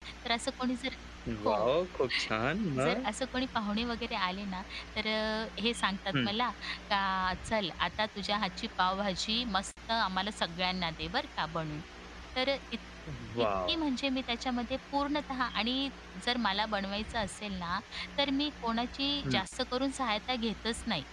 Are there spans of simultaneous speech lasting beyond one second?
No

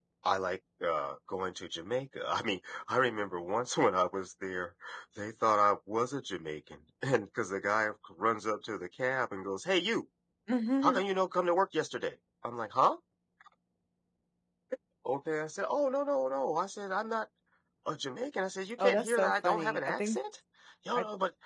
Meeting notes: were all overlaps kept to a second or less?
No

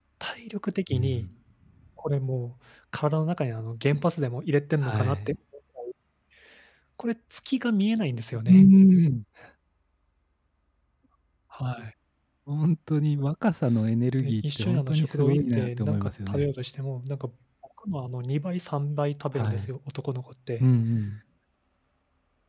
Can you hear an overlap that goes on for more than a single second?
Yes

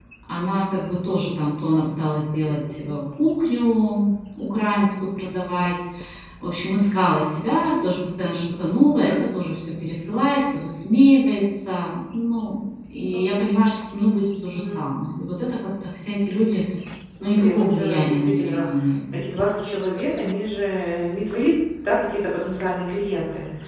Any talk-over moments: Yes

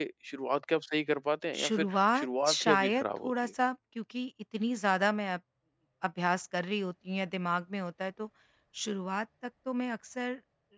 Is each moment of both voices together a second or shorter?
No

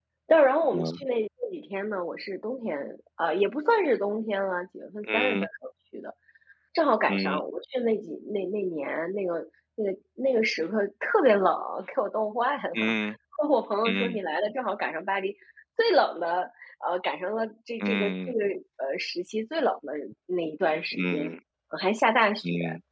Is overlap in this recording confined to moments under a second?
Yes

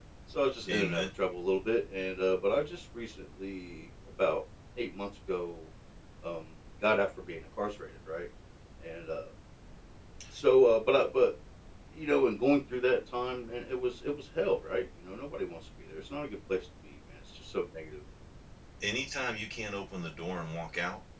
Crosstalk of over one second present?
No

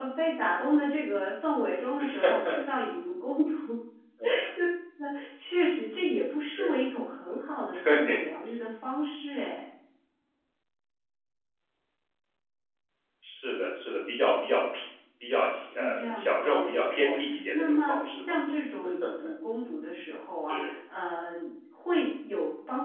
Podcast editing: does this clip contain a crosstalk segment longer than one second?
Yes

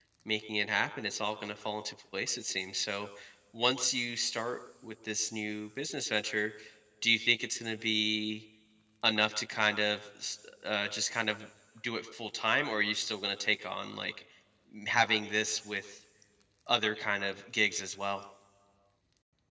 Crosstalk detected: No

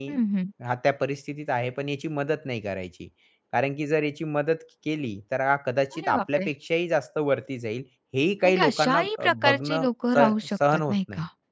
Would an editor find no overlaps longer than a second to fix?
No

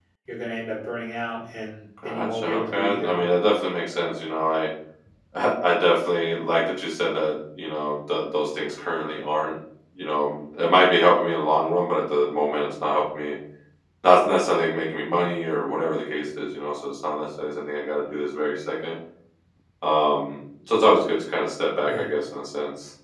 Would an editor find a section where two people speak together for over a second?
Yes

